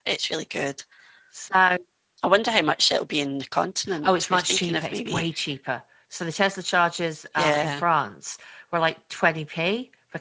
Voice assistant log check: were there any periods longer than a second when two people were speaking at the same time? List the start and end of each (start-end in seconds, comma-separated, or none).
4.0-5.2